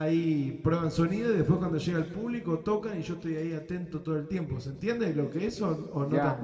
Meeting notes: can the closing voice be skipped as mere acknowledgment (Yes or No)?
No